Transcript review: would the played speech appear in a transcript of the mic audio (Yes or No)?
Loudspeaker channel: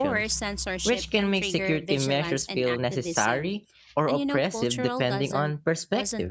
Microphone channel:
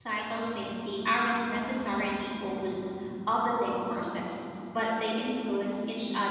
No